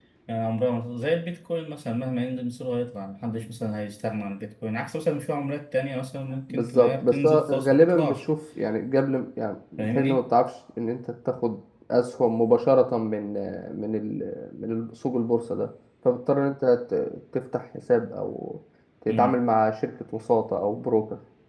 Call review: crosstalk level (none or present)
present